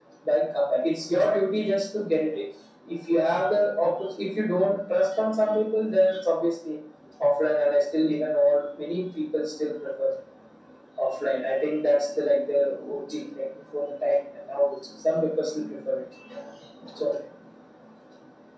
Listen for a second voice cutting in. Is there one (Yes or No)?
No